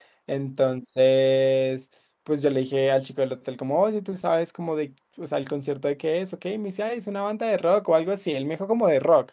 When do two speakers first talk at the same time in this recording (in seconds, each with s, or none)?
none